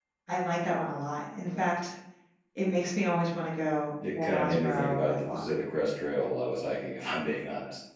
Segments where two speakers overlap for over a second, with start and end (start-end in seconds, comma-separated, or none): 4.2-5.5